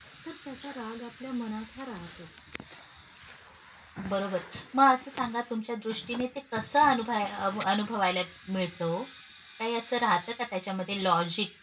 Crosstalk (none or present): none